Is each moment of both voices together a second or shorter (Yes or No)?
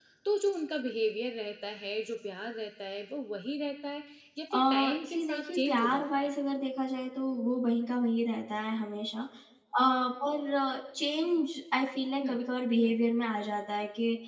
No